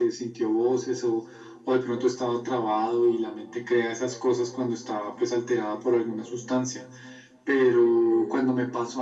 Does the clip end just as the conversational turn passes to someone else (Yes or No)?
No